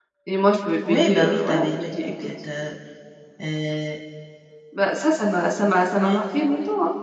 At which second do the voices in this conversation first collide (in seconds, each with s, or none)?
0.9 s